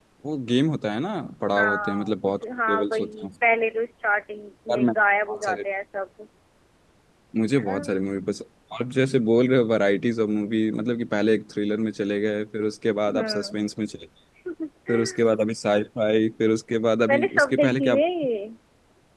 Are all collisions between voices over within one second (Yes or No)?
No